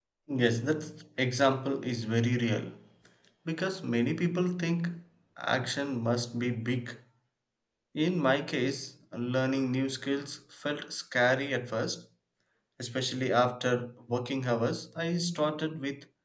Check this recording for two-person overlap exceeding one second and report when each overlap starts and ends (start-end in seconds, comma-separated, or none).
none